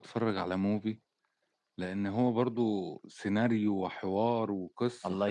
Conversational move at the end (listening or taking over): taking over